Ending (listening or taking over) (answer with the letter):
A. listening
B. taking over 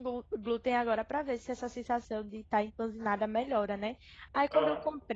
A